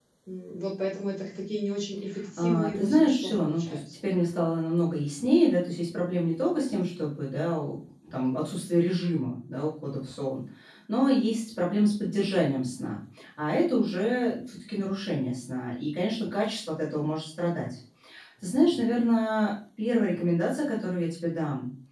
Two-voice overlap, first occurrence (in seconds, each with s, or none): 2.4 s